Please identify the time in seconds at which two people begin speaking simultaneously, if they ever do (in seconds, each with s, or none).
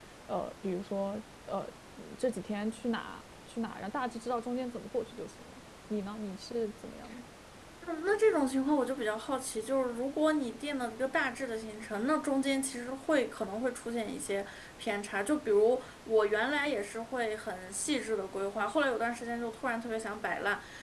none